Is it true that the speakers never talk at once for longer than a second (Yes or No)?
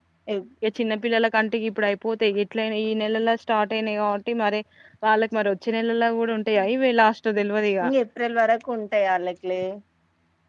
Yes